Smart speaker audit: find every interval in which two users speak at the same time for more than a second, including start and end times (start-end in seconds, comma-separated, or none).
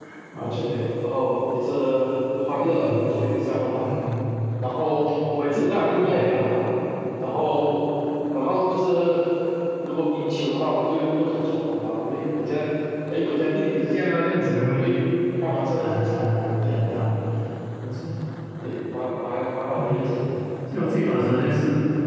15.8-17.1